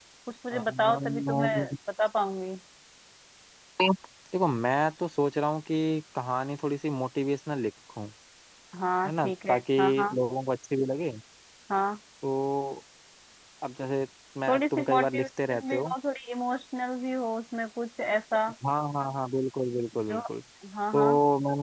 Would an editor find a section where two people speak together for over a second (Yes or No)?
Yes